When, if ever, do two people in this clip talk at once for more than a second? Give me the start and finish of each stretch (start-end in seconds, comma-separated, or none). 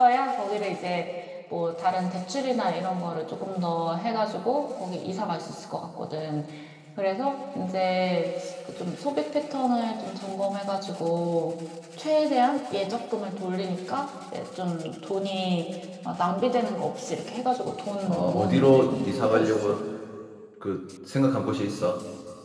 18.1-19.8